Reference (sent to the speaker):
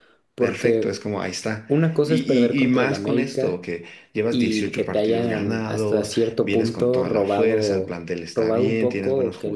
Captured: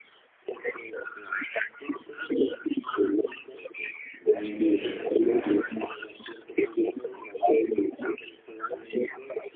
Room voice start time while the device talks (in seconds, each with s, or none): 4.3 s